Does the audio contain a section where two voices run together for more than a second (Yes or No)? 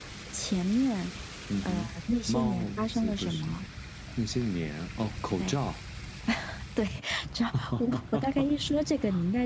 Yes